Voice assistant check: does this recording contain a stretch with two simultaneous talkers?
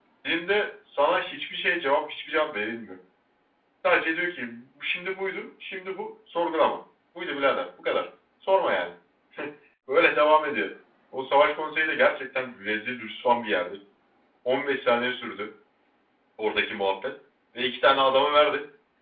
No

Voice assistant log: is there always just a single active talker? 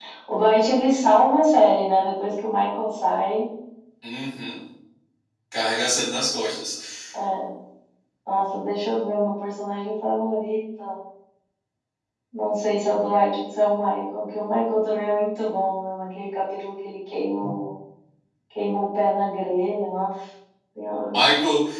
Yes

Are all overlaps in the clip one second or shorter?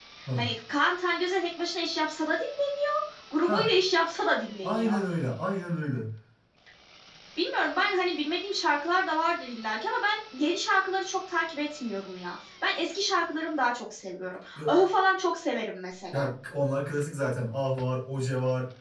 Yes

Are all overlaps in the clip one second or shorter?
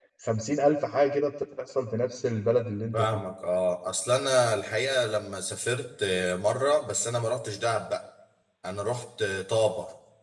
Yes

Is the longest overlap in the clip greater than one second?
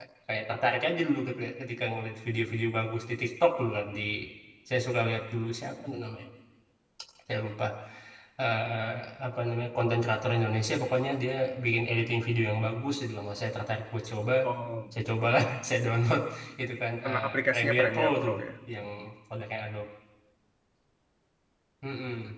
Yes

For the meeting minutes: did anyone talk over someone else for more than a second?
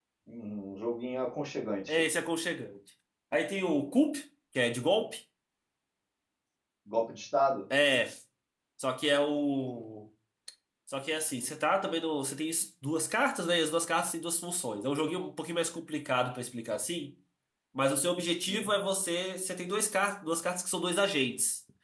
No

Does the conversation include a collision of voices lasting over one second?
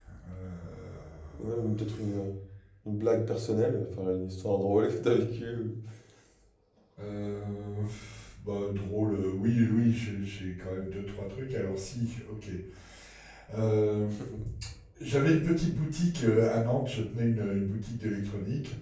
No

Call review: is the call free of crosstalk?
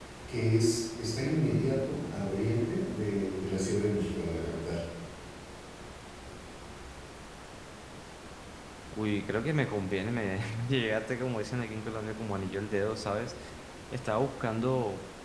Yes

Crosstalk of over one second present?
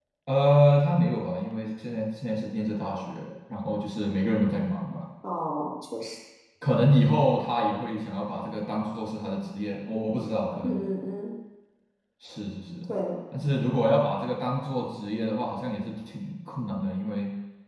No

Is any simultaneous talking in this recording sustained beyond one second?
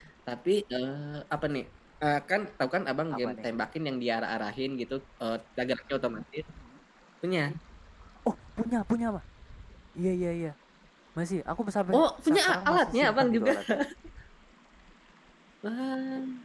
Yes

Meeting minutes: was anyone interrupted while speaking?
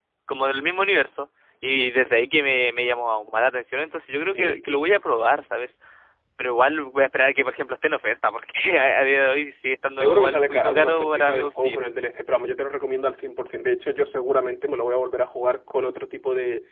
Yes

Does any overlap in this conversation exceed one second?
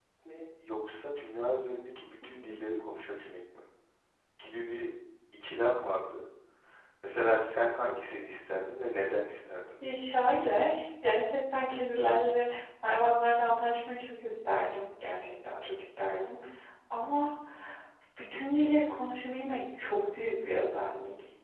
No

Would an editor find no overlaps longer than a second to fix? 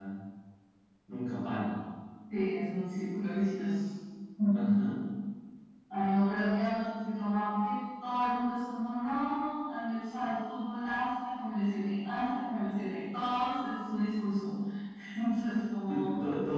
Yes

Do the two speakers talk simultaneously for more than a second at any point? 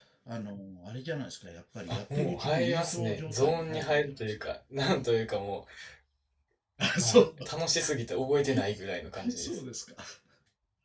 Yes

